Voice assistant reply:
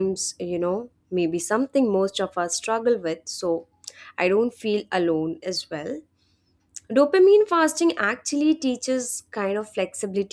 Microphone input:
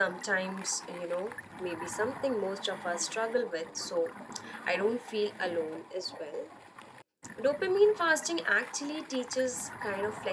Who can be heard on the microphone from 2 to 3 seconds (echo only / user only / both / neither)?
echo only